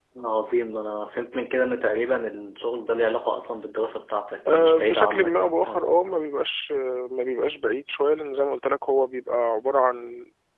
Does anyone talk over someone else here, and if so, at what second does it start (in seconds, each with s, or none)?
4.5 s